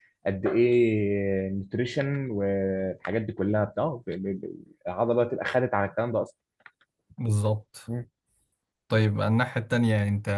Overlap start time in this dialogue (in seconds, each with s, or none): none